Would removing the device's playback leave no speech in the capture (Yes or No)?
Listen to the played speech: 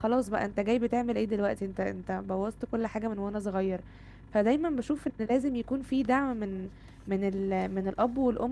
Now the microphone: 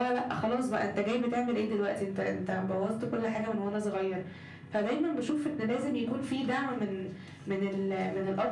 Yes